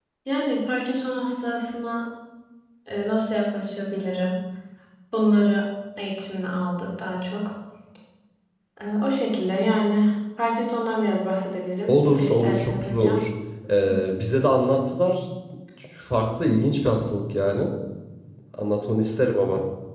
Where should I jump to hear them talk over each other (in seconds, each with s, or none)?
11.9 s